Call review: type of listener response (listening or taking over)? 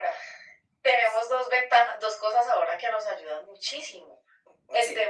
listening